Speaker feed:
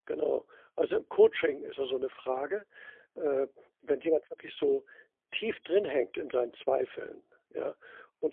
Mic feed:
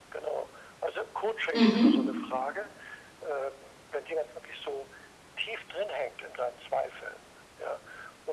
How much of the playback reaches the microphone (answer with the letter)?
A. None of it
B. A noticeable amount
B